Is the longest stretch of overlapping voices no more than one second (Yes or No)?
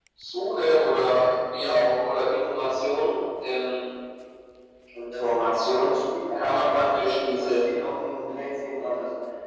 No